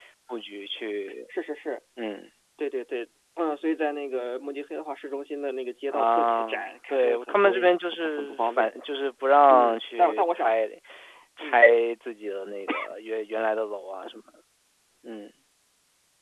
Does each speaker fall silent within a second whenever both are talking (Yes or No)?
No